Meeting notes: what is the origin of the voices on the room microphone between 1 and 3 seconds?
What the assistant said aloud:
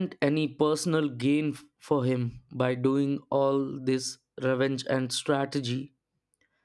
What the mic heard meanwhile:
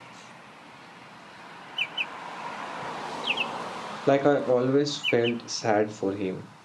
neither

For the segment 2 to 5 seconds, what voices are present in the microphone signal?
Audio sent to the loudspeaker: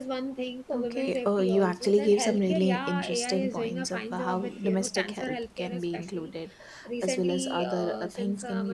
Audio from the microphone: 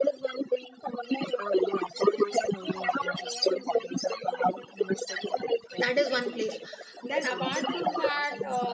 echo only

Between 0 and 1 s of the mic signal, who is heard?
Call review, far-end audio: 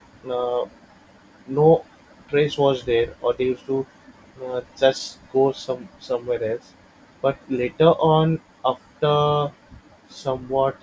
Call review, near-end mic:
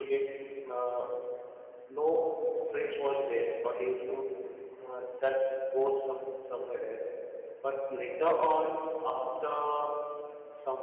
echo only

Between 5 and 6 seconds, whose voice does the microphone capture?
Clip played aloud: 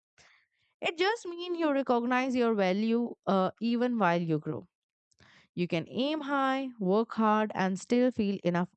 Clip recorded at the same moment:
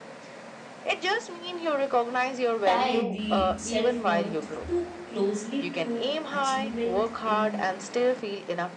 both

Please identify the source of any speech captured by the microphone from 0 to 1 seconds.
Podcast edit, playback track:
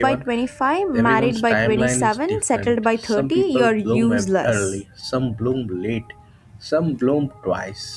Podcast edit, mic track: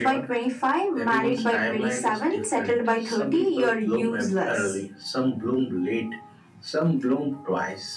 echo only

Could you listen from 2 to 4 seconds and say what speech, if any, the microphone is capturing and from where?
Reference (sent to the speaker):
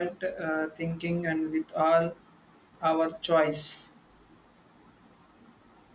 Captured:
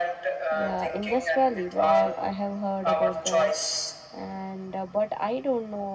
both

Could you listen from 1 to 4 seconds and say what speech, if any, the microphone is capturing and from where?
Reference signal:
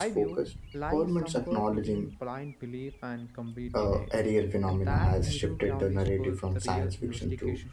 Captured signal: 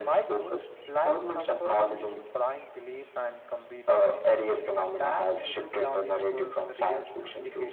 echo only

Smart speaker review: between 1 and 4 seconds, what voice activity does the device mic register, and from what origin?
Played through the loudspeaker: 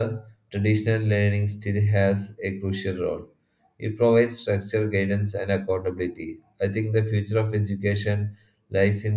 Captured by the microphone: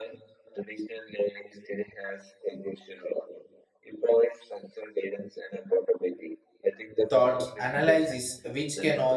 echo only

